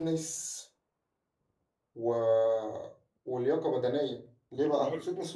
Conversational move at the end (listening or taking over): listening